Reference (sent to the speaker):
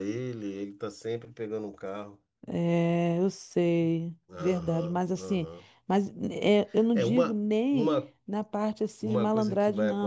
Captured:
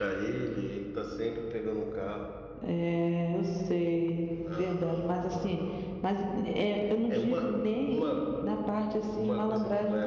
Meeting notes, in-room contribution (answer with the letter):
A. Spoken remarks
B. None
B